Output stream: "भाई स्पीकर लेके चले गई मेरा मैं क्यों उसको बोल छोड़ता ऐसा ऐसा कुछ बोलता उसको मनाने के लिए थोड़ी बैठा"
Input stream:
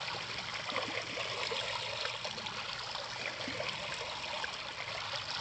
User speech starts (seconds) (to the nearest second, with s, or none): none